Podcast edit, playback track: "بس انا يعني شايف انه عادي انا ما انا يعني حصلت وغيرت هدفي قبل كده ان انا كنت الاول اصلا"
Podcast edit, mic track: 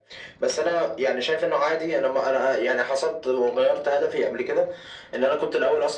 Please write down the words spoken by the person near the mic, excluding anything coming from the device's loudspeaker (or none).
none